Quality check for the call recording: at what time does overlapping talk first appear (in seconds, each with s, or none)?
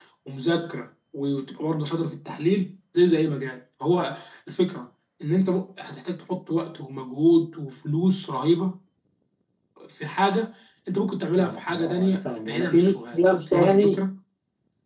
11.4 s